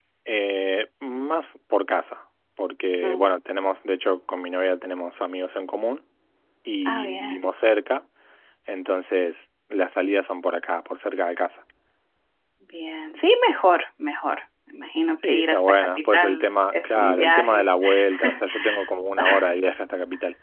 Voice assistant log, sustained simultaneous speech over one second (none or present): present